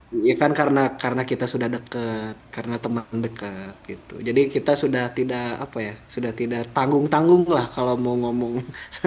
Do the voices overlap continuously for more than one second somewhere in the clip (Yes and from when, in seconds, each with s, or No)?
No